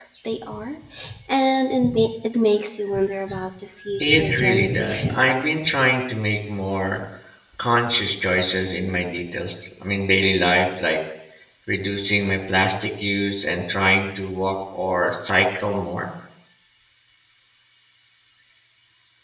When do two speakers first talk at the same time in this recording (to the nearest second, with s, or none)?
4 s